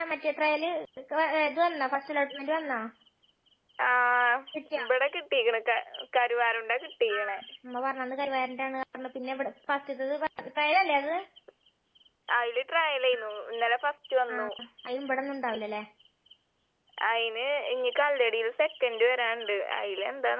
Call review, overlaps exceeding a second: none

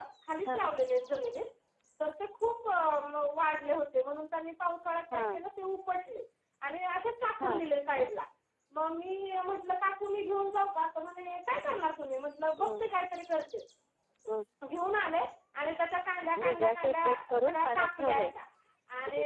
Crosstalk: present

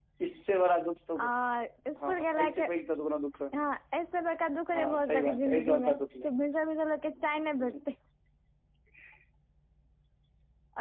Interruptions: present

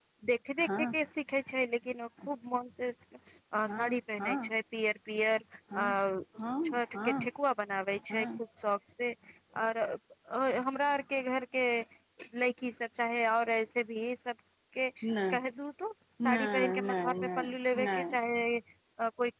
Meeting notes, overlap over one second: present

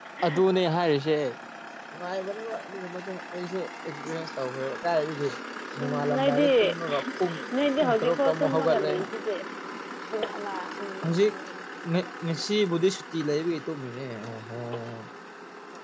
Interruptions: present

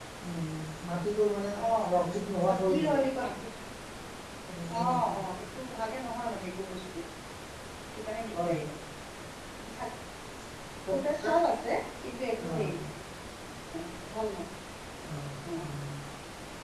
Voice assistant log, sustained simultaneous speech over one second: none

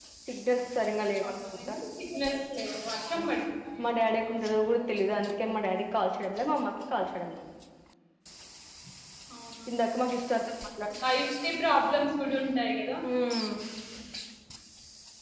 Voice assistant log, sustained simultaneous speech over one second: none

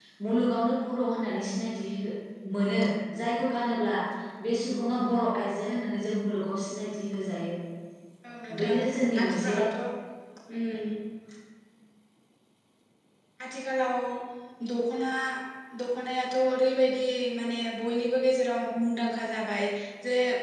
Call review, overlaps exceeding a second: none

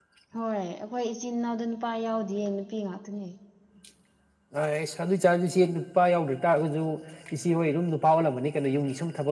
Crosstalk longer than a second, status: none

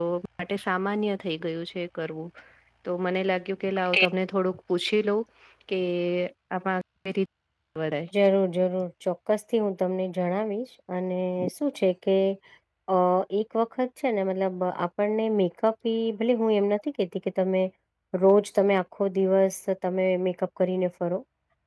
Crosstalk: none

